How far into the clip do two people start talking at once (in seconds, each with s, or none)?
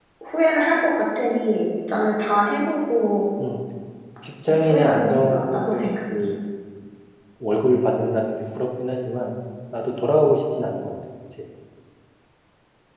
4.5 s